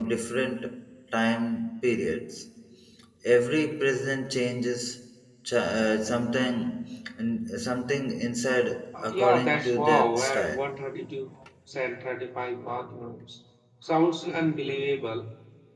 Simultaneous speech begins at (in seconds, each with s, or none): 8.9 s